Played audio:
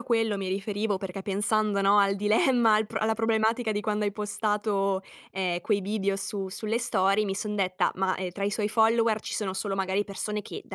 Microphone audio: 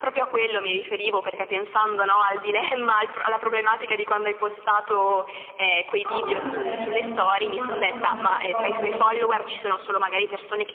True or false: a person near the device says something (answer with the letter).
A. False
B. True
B